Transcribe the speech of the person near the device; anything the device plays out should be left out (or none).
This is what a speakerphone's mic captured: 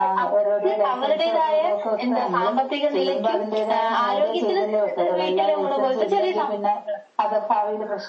none